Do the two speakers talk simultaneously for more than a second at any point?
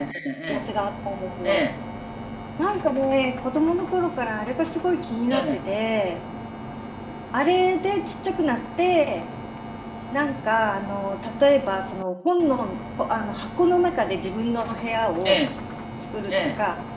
No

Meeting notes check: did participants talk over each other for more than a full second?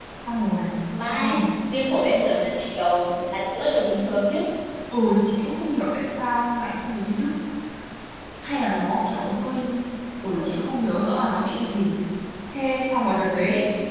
No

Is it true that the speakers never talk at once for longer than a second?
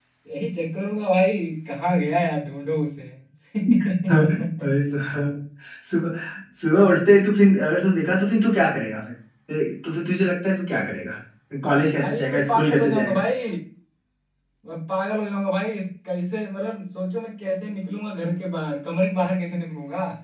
No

